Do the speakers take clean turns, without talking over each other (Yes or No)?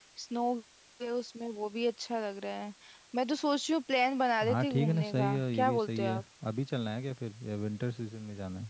No